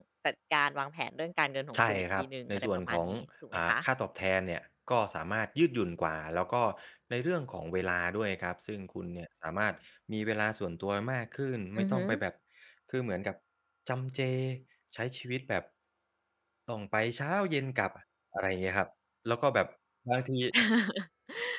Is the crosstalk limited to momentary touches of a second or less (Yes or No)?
No